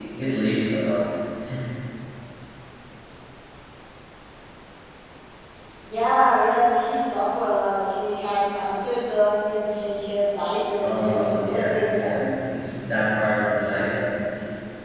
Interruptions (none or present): present